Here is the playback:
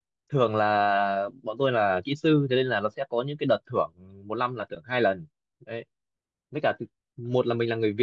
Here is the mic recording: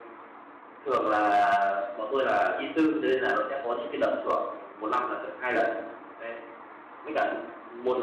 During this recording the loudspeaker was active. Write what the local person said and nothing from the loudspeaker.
none

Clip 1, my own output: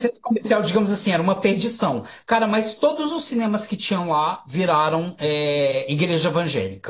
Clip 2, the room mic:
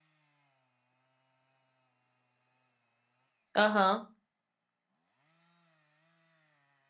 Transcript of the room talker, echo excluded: aham.

